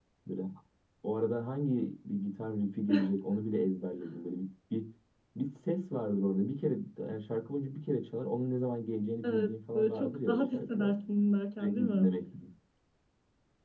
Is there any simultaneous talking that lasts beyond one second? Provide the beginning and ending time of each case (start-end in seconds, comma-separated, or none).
9.2-10.9